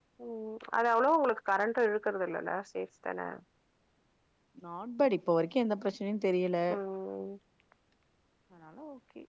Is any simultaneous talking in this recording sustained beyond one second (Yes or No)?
No